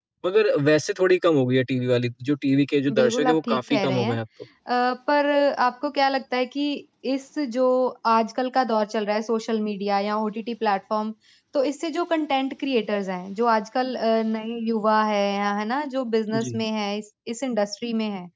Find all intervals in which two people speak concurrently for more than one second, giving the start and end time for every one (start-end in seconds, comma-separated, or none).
3.0-4.2